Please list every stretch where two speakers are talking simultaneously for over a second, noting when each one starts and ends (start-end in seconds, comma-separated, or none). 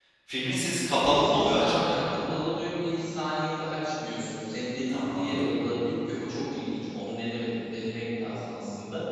0.9-2.1